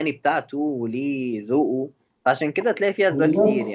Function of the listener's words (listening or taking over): listening